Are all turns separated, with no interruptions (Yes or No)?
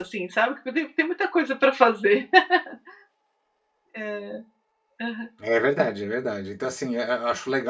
Yes